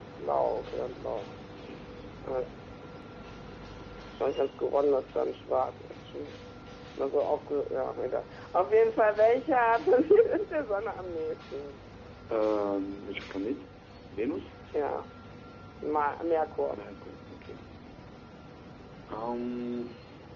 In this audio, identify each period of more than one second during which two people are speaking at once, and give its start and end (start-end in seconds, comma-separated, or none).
none